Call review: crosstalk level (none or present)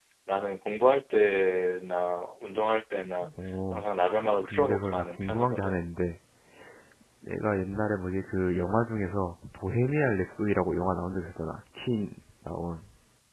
present